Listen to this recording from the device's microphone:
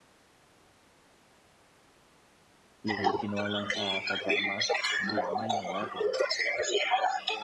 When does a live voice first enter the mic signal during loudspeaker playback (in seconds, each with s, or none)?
2.8 s